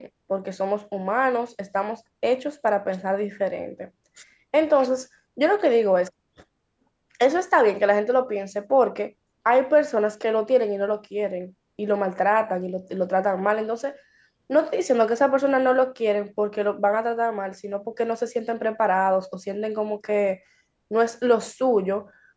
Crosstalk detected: No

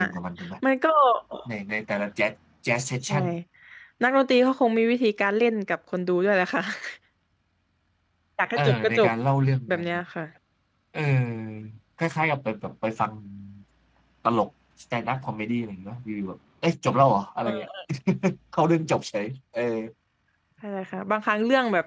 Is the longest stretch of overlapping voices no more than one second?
Yes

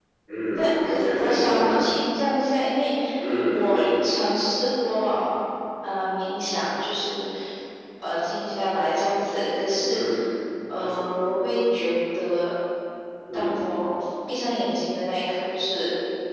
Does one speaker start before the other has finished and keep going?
Yes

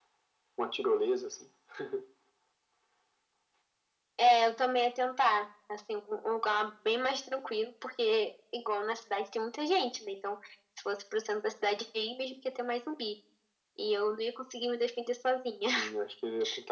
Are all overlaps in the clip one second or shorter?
Yes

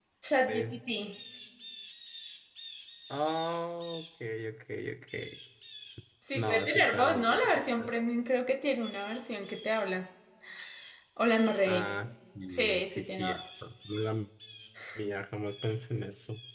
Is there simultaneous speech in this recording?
Yes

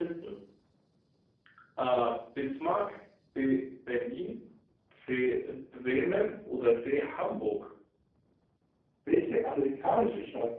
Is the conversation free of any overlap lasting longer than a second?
Yes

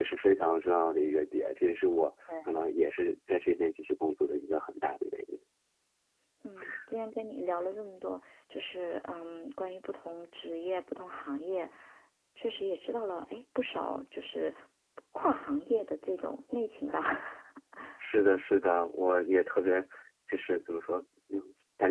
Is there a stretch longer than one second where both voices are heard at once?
No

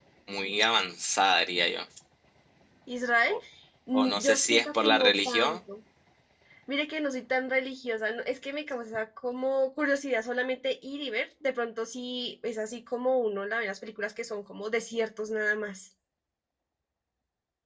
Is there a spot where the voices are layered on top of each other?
Yes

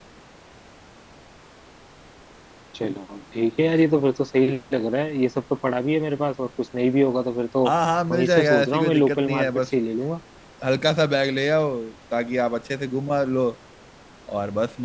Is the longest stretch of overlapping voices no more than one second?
No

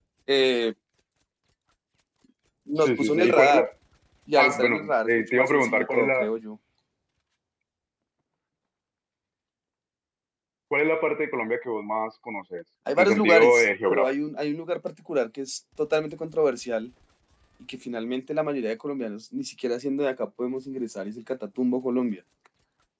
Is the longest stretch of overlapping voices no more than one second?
No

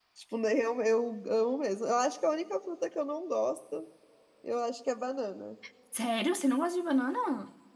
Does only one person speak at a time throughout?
Yes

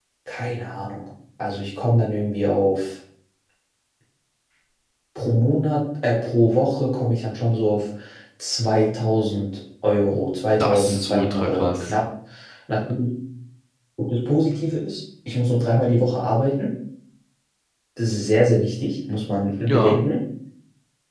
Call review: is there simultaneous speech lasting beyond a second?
Yes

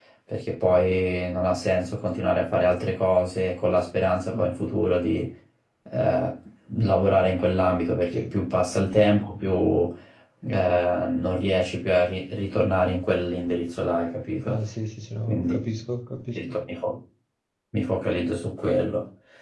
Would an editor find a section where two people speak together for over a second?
No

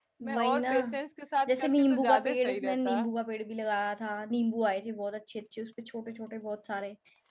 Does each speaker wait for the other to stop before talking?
No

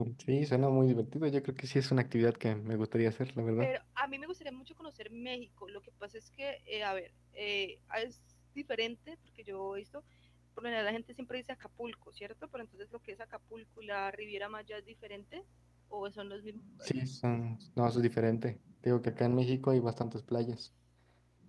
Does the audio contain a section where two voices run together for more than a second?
No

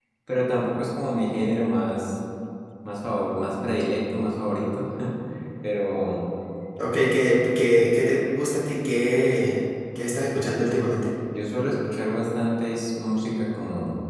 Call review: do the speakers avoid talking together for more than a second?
Yes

